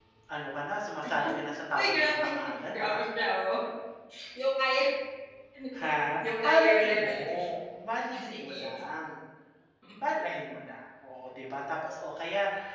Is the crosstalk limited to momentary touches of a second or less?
No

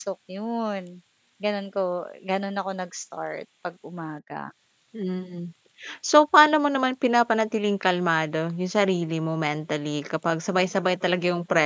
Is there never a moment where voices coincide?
Yes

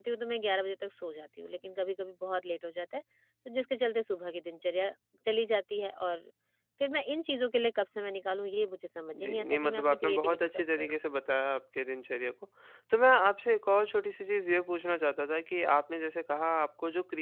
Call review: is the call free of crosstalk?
No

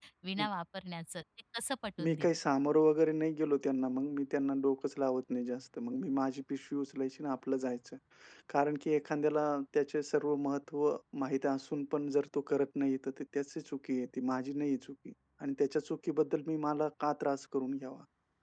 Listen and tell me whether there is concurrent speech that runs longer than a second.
No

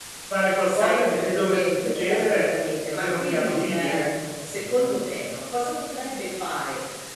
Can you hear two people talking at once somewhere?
Yes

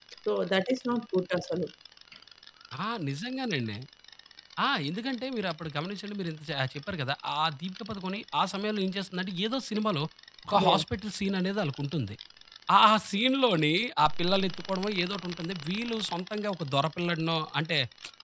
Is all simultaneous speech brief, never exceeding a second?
Yes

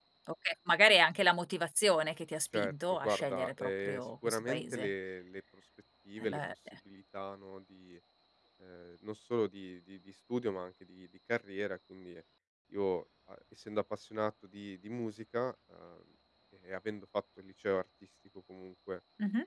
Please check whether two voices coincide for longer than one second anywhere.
Yes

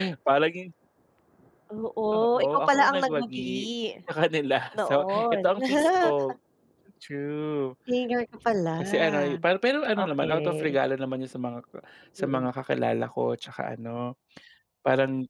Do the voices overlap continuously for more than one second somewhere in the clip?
Yes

